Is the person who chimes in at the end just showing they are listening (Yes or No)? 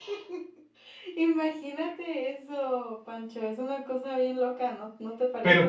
No